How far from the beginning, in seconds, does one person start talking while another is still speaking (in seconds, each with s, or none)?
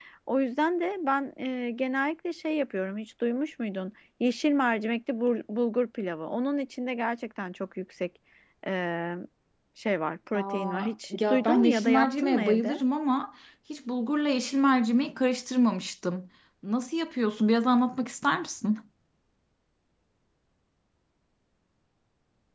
10.3 s